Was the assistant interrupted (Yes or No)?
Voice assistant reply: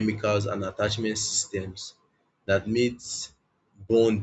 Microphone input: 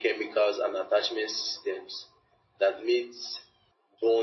No